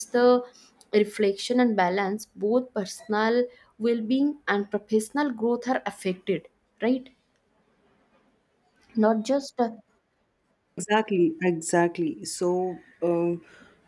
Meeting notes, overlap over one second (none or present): none